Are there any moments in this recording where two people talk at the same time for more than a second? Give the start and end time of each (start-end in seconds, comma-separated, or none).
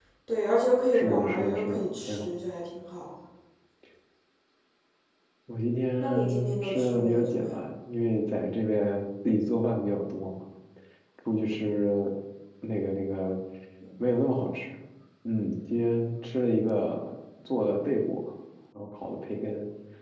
0.9-2.3, 6.0-7.6